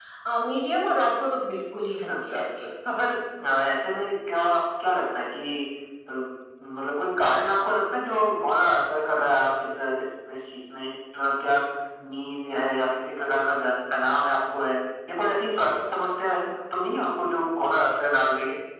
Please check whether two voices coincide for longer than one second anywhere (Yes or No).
No